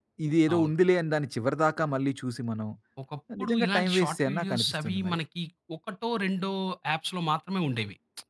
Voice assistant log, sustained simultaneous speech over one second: present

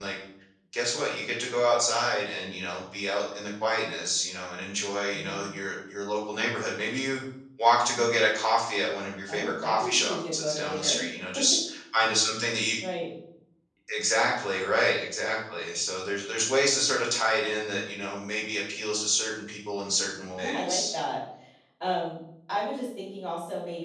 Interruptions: present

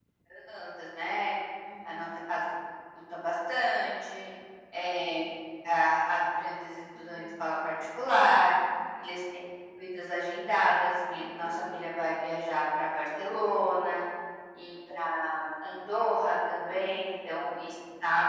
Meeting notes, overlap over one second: none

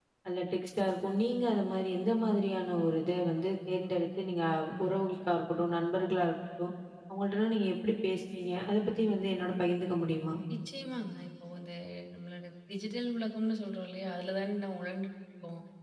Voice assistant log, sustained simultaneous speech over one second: none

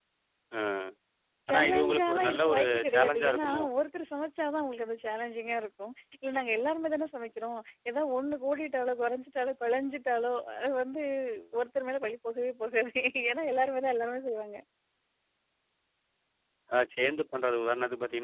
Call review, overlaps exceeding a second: present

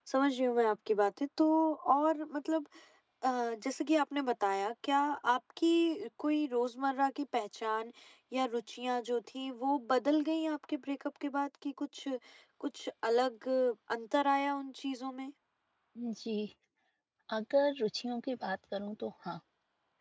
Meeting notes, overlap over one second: none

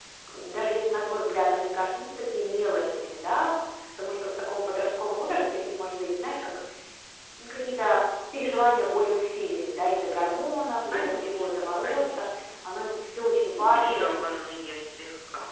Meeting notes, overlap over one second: present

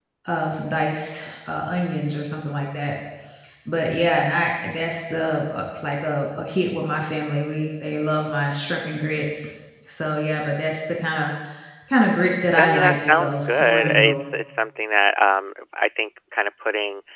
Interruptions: present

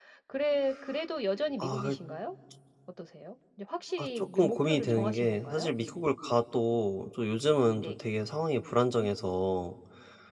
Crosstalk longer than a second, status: present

